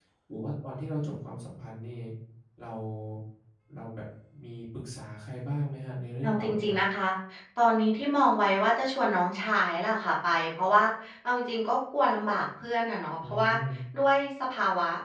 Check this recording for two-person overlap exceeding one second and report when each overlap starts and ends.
none

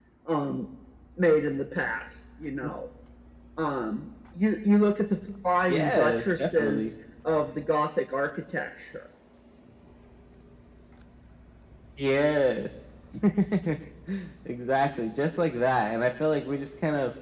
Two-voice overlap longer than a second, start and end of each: 5.7-6.9

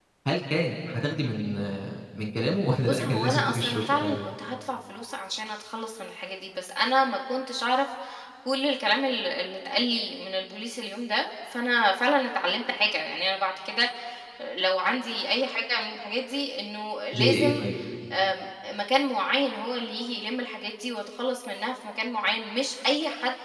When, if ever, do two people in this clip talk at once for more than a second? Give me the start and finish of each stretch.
2.8-4.2

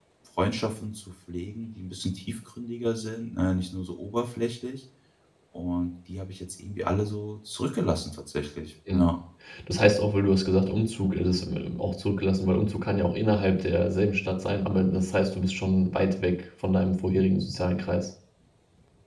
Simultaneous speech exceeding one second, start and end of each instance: none

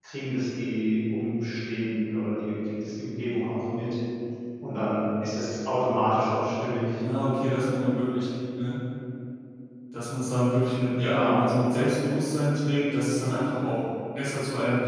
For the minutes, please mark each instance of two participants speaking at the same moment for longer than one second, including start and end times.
none

